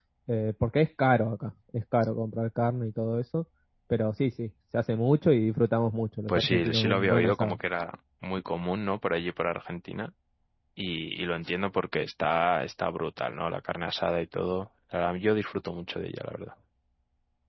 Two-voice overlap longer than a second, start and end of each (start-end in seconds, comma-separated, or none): 6.3-7.6